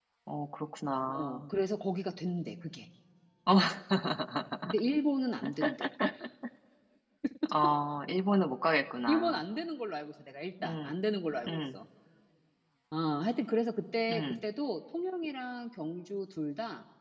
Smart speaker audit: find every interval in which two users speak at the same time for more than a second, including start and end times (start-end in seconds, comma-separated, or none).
none